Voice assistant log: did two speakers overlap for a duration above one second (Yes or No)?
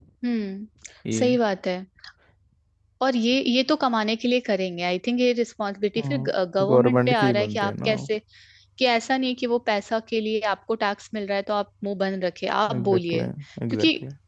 Yes